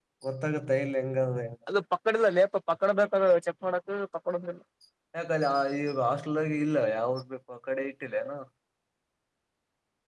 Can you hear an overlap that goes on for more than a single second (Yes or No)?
No